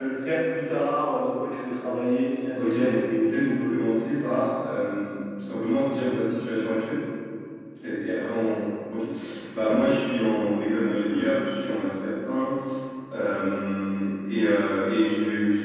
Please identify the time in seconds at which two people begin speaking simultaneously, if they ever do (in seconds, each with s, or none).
2.6 s